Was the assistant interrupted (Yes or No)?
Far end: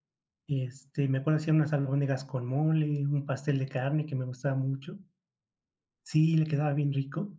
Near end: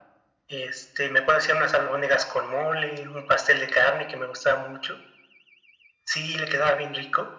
No